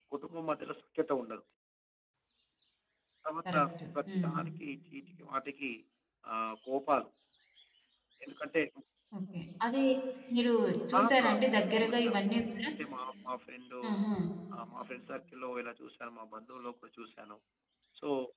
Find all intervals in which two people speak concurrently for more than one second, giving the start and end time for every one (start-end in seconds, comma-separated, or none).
11.0-12.2